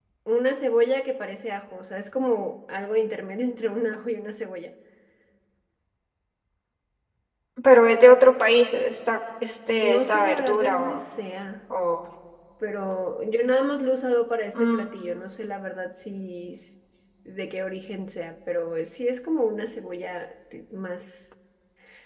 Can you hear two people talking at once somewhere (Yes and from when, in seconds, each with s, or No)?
Yes, from 9.8 s